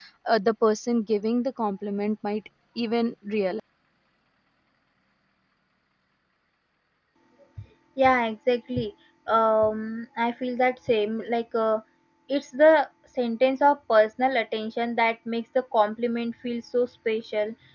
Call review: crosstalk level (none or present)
none